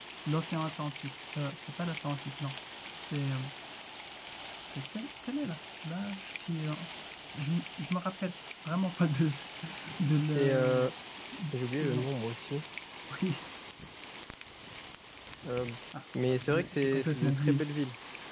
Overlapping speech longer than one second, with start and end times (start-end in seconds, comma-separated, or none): 16.4-17.6